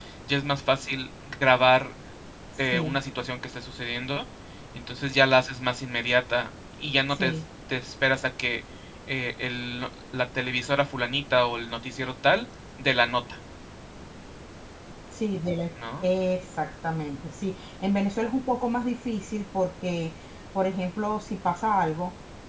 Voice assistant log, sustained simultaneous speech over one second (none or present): none